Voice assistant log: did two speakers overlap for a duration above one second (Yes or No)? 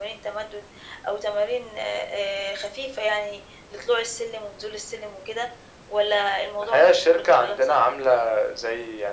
Yes